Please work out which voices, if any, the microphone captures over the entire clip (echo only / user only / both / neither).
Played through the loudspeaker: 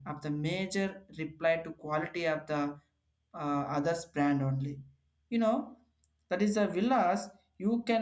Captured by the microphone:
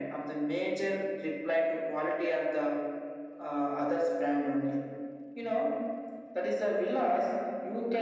echo only